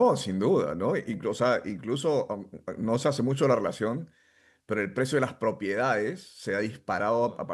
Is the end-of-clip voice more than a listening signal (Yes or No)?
No